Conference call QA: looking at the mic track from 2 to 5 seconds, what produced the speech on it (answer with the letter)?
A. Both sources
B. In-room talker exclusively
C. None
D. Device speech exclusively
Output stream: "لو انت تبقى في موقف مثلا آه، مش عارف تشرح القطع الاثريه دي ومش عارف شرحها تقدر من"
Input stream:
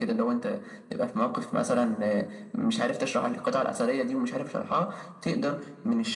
D